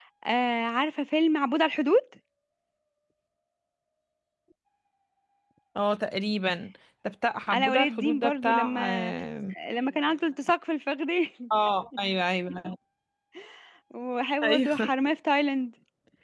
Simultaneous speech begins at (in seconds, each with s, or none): 7.5 s